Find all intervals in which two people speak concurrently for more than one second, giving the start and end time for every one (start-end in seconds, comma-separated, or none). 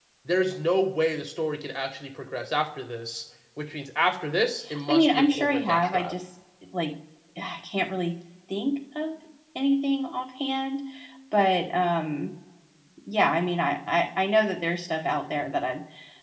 4.9-6.2